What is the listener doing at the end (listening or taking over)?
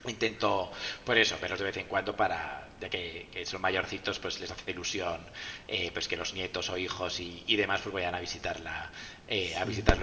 listening